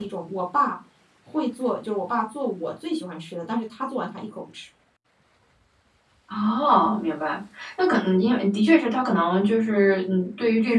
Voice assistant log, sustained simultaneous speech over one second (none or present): none